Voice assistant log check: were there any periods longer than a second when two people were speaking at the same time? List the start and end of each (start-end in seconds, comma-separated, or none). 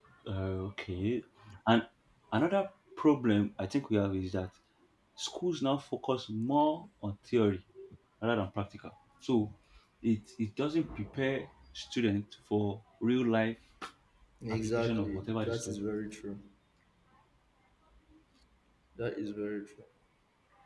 14.5-15.8